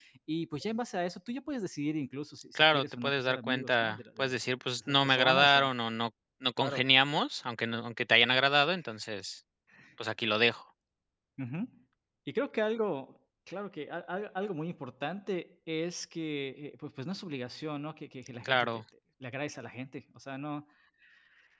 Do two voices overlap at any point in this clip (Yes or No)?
Yes